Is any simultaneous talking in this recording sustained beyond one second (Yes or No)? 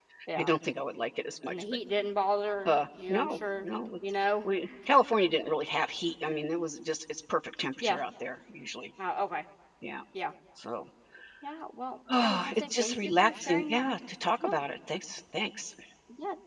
Yes